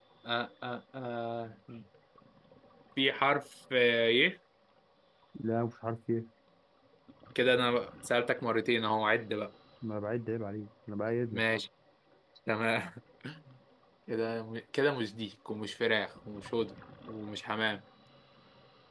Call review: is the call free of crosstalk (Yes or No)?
Yes